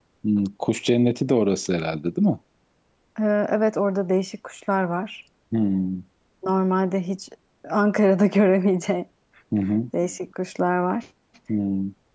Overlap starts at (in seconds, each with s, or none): none